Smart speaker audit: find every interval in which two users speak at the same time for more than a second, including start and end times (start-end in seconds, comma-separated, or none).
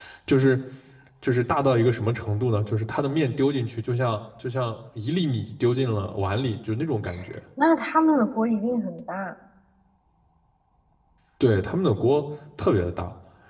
none